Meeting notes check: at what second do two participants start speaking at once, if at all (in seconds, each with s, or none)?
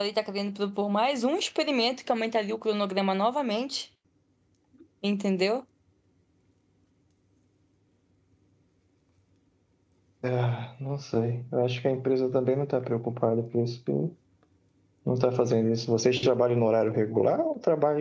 none